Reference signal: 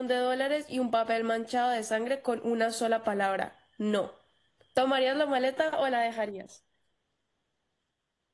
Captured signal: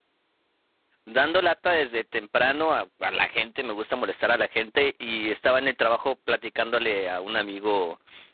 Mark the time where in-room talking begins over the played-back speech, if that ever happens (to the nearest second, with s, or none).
1 s